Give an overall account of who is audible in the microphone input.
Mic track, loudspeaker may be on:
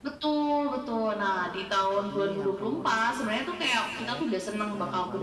both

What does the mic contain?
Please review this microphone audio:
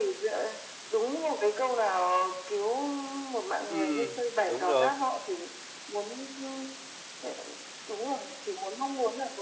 both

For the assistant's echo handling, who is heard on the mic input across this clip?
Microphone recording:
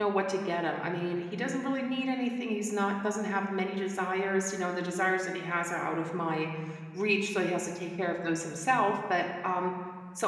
user only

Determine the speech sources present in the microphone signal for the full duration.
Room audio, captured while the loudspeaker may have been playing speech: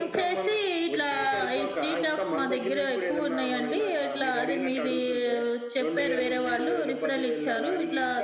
echo only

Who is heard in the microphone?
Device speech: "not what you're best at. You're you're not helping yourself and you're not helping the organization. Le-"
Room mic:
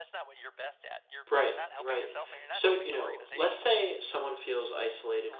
both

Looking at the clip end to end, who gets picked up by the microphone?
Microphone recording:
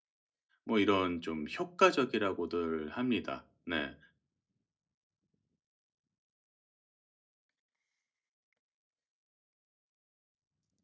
user only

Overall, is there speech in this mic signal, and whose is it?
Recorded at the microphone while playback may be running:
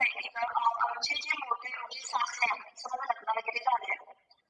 echo only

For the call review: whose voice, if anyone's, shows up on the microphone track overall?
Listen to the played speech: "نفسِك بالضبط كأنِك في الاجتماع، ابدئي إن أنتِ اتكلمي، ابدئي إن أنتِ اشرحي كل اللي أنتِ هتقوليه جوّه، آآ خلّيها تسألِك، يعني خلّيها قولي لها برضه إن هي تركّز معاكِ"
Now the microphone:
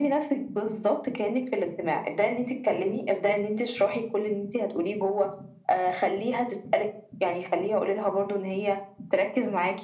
echo only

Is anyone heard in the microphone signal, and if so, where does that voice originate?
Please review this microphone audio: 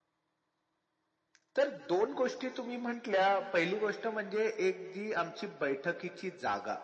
echo only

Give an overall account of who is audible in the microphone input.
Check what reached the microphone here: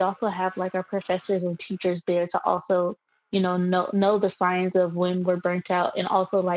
user only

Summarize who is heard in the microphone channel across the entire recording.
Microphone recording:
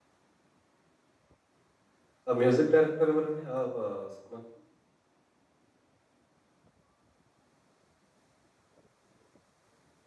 user only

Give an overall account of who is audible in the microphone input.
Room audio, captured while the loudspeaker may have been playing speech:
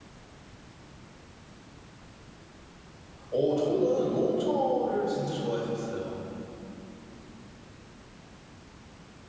user only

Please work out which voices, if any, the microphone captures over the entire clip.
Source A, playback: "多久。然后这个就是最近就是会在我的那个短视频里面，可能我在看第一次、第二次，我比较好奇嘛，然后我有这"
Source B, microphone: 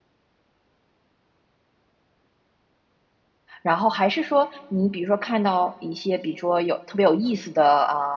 user only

